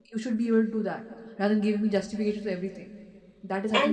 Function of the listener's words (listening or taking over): taking over